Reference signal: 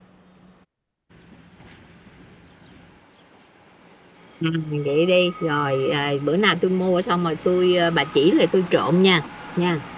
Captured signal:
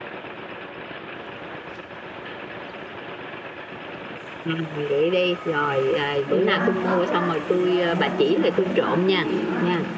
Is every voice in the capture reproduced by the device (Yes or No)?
No